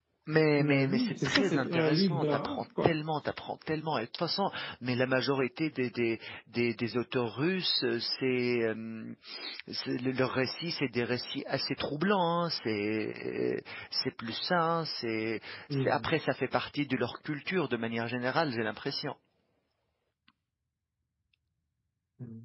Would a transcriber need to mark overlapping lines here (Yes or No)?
Yes